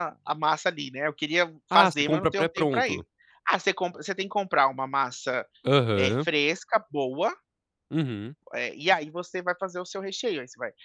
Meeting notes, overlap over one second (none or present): present